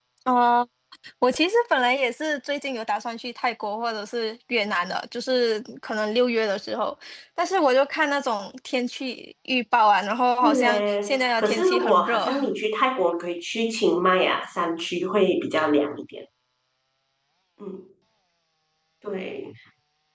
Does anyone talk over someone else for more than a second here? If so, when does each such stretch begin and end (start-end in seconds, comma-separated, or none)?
10.4-12.3